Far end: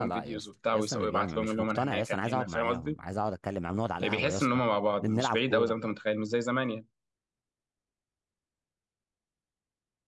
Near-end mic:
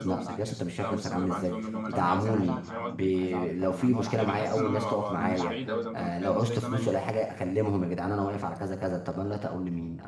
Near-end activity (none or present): present